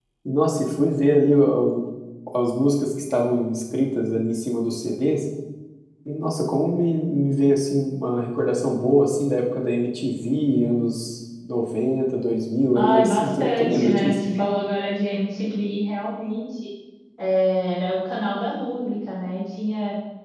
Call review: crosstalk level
present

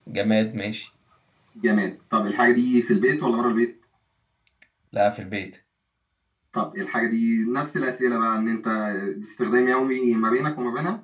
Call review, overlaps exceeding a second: none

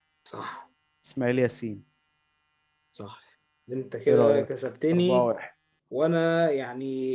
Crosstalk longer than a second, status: none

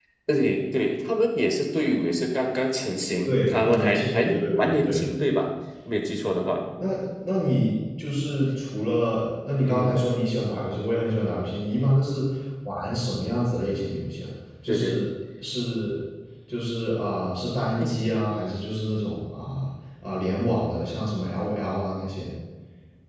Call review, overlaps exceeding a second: present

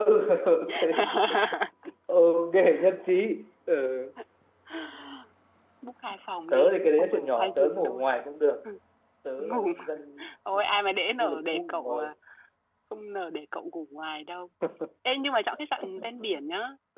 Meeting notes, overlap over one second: present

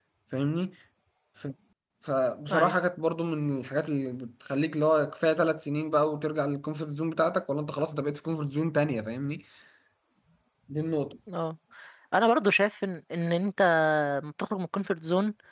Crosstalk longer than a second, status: none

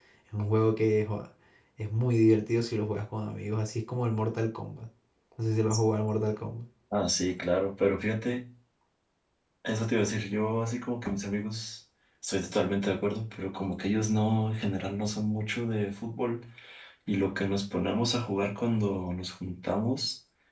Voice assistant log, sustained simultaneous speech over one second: none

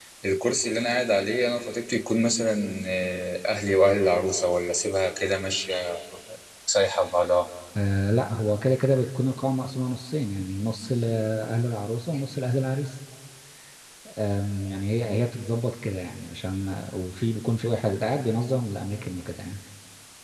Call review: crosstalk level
none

